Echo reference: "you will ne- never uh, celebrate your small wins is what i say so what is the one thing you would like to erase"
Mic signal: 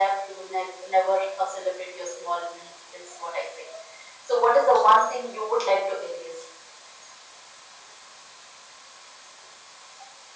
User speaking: No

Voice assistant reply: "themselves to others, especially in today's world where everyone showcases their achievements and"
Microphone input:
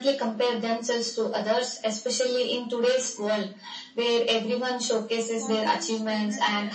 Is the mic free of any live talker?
No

